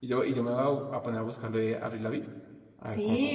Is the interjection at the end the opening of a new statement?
Yes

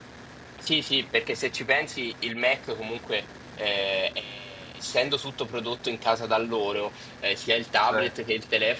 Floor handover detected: No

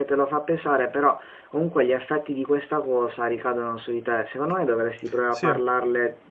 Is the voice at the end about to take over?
No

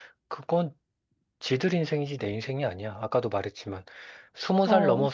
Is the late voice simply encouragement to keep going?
Yes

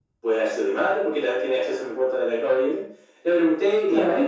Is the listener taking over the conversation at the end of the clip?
No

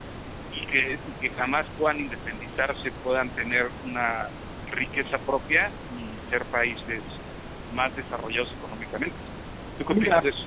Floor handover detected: Yes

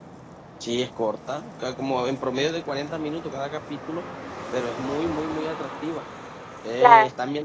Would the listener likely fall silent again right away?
Yes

